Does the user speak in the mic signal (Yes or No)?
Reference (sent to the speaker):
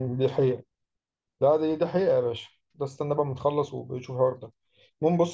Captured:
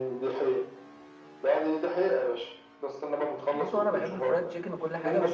Yes